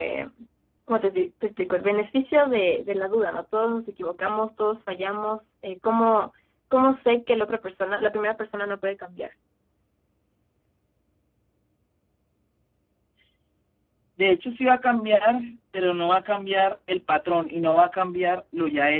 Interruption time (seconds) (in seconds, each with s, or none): none